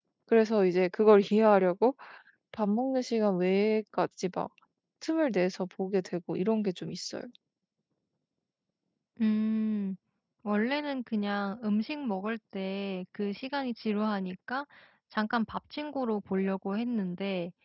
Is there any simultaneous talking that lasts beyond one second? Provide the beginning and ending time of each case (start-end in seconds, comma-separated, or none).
none